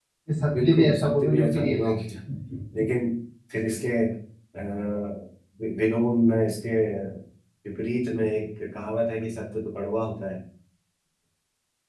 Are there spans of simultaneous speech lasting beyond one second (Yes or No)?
Yes